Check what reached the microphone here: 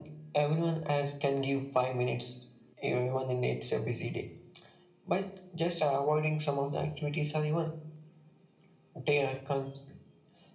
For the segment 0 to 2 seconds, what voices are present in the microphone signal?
echo only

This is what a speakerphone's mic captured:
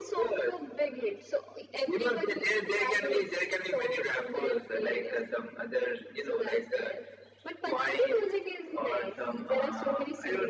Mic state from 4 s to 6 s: echo only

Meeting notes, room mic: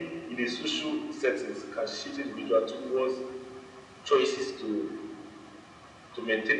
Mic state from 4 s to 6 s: echo only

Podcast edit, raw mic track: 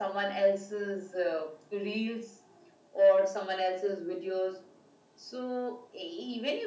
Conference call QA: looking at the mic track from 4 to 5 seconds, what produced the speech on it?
echo only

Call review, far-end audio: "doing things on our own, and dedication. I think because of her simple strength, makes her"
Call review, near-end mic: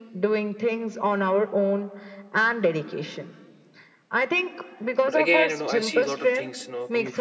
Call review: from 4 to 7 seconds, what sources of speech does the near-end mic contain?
both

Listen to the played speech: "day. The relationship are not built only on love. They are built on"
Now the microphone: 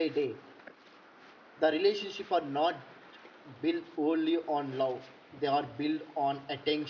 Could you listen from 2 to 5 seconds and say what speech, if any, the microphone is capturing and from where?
echo only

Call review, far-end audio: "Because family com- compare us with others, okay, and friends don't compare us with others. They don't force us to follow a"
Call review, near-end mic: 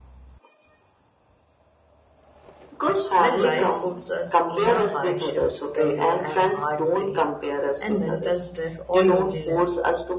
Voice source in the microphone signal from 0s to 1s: neither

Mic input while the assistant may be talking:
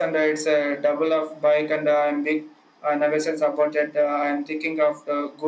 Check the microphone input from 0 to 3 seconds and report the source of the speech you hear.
echo only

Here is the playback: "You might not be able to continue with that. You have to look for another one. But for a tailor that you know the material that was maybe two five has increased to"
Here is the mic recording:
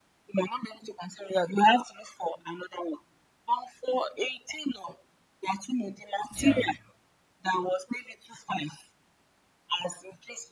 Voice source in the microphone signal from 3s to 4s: echo only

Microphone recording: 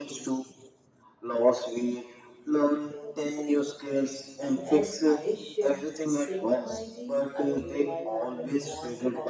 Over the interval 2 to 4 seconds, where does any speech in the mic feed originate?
echo only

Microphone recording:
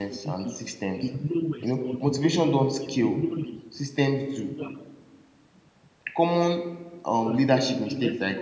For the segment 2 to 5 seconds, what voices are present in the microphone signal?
both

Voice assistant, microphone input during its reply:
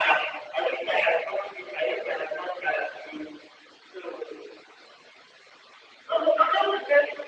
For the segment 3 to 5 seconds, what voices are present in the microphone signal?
echo only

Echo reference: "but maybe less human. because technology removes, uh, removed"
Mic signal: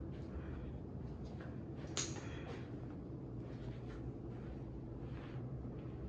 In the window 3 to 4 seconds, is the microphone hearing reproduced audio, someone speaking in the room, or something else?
neither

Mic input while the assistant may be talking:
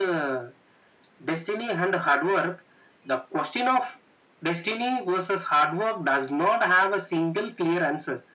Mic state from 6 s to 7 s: echo only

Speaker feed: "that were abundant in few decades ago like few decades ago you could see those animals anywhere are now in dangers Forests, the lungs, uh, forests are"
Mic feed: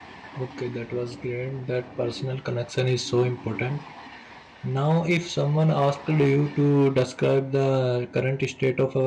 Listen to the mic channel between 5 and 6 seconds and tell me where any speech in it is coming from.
user only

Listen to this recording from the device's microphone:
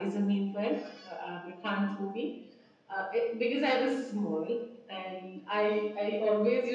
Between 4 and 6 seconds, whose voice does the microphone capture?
echo only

